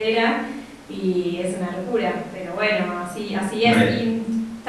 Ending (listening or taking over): listening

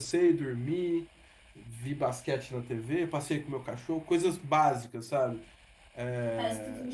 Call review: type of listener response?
taking over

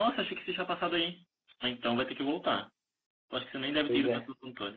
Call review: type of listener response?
listening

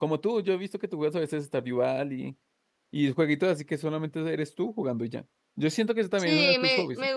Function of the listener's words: taking over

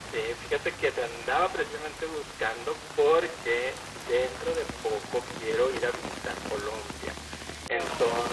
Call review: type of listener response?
listening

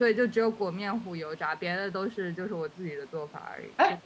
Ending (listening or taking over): taking over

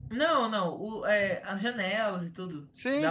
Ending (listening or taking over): taking over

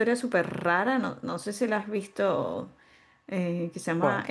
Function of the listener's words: listening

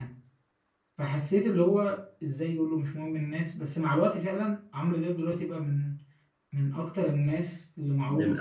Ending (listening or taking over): taking over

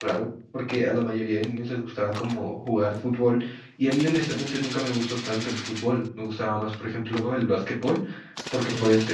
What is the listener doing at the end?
listening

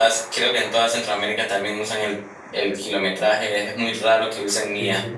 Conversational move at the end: taking over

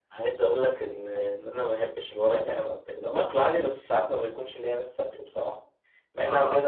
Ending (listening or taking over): listening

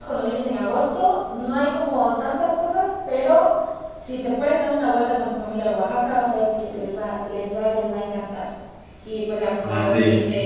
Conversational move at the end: listening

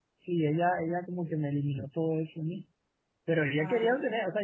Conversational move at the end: listening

